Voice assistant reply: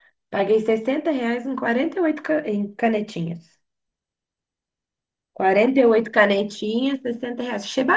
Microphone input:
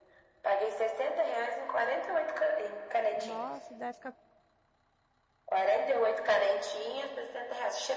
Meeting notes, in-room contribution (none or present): present